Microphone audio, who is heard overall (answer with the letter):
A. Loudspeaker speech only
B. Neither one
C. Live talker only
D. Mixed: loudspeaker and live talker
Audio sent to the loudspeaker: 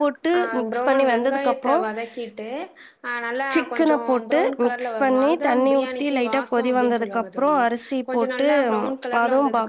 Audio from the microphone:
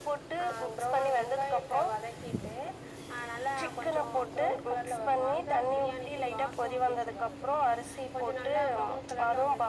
A